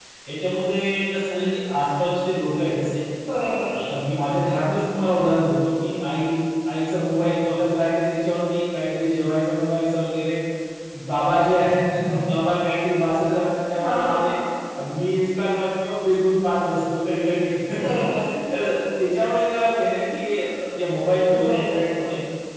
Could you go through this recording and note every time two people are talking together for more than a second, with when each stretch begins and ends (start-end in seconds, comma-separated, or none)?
none